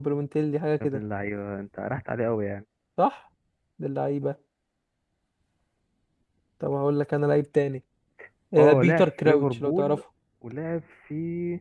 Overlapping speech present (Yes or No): Yes